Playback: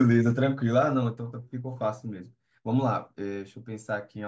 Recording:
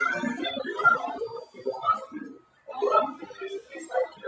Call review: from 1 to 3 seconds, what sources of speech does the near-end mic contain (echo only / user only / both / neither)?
echo only